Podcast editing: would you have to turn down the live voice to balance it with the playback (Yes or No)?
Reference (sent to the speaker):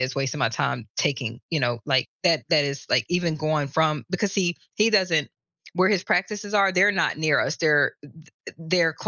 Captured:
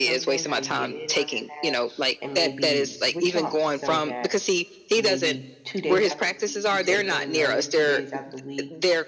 No